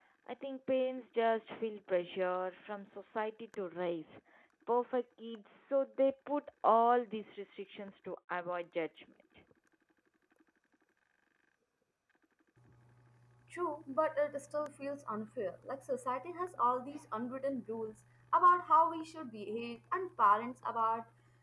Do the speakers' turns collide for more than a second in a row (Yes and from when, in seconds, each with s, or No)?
No